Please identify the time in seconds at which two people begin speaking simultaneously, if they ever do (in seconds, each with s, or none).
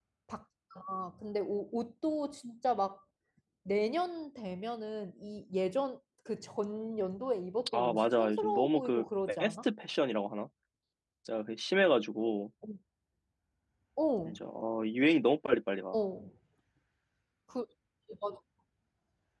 7.7 s